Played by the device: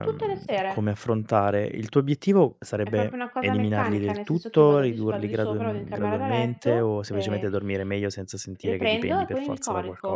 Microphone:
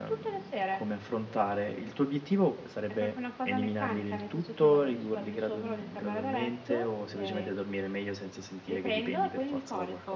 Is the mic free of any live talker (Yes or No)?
Yes